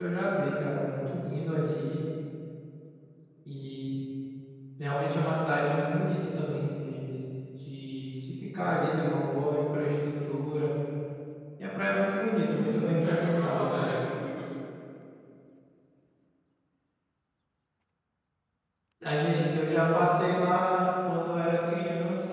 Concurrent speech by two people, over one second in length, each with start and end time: 12.4-14.0

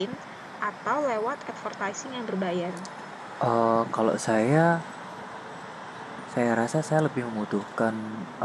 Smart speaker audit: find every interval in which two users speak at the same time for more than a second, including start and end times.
none

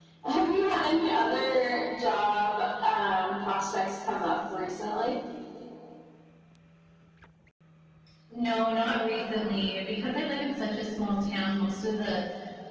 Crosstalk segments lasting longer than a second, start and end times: none

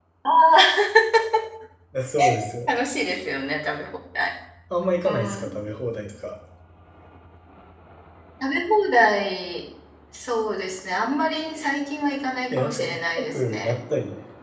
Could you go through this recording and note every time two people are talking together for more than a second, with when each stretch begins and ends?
12.5-13.7

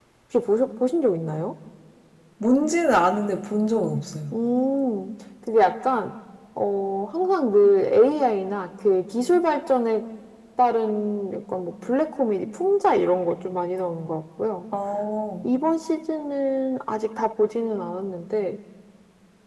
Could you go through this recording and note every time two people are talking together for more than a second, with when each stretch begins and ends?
none

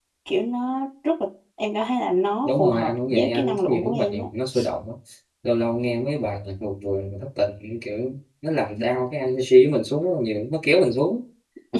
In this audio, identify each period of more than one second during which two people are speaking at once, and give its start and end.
2.5-4.2

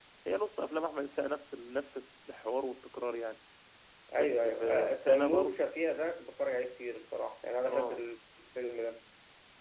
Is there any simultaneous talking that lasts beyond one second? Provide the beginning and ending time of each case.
4.2-5.6

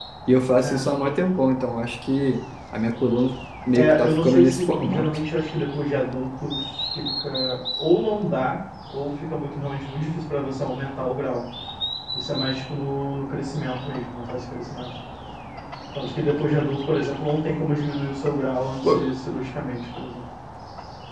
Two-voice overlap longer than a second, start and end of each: 3.7-5.0

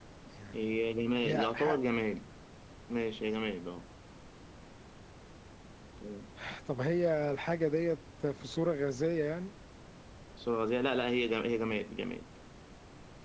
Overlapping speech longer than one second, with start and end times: 0.5-1.8

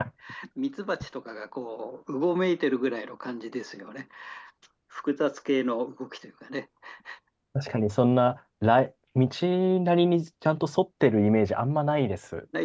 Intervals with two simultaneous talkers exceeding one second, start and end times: none

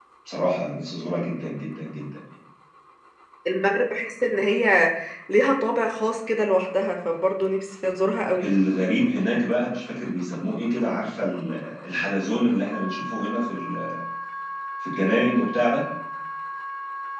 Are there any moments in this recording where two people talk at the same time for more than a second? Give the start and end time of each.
none

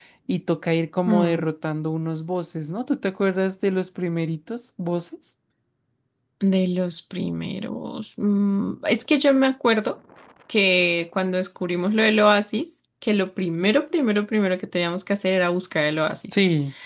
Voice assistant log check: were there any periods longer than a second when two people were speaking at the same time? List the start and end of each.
none

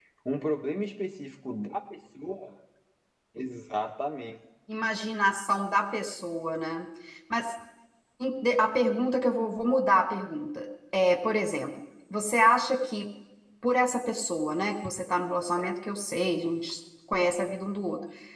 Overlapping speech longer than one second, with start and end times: none

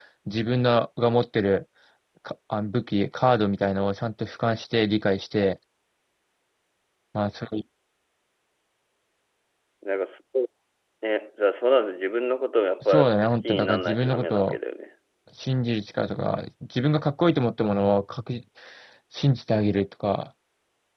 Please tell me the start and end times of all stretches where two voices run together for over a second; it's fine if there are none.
12.8-14.6

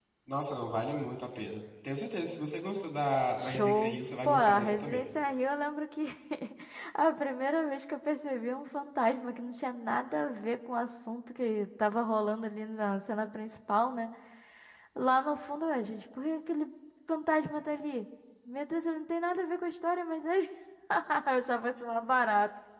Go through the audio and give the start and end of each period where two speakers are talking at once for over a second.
3.4-5.0

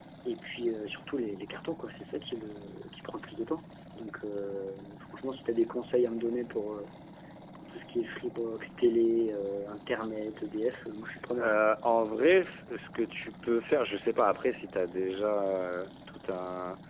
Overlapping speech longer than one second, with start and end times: none

